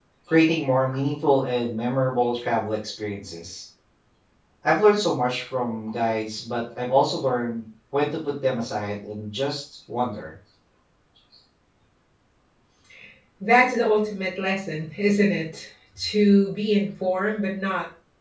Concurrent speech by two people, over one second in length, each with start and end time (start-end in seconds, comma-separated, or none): none